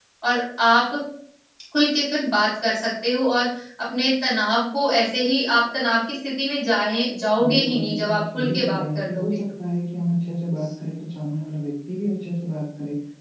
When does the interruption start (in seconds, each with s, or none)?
7.3 s